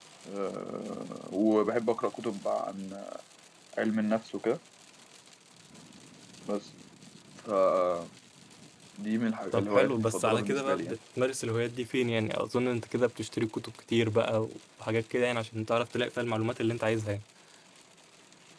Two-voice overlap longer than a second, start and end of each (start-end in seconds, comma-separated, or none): 9.5-10.9